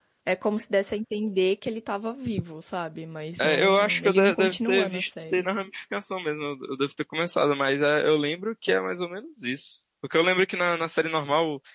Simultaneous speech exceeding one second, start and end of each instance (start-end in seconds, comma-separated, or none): 3.4-5.5